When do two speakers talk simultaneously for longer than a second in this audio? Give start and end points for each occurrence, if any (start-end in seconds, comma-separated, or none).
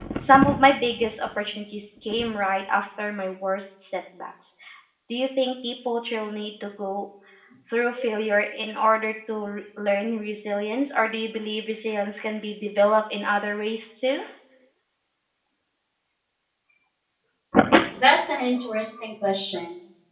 none